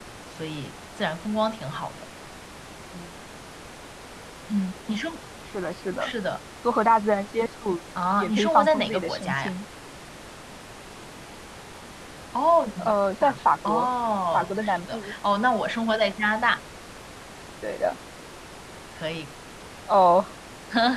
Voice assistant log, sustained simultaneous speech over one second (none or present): present